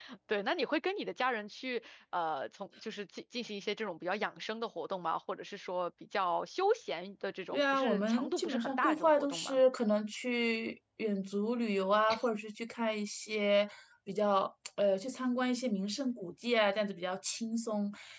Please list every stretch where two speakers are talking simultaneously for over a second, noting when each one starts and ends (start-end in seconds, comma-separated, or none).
7.5-9.6